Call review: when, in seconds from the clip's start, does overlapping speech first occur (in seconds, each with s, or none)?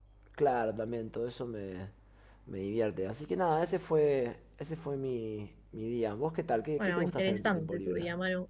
6.8 s